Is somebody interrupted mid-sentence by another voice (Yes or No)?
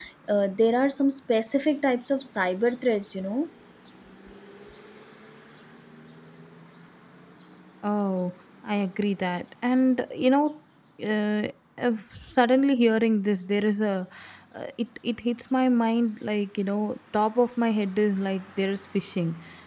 No